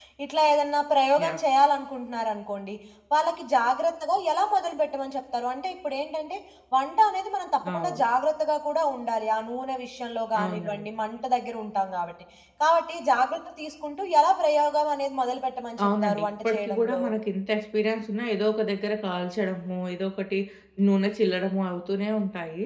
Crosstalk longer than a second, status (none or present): present